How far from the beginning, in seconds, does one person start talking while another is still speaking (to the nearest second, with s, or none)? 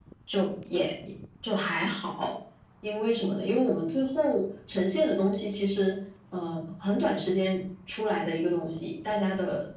none